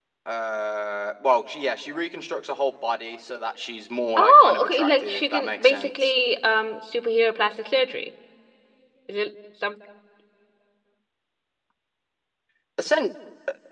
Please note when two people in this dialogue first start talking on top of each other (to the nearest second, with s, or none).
4 s